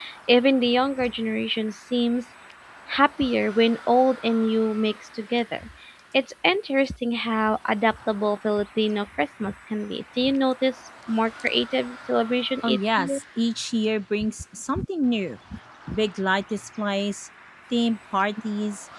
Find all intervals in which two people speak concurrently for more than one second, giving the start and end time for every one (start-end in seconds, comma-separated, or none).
none